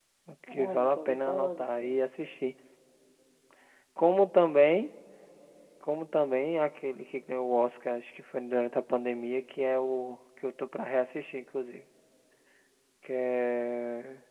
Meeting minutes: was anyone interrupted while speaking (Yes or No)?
Yes